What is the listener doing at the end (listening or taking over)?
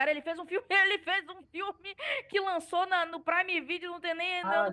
taking over